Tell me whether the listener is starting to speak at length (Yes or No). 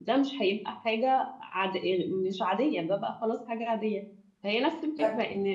No